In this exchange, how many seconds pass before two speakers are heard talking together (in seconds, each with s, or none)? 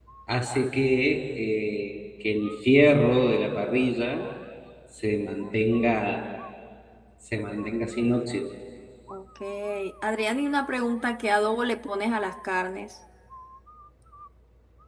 none